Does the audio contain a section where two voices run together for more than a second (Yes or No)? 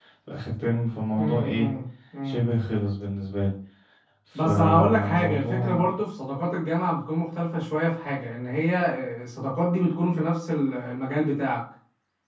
Yes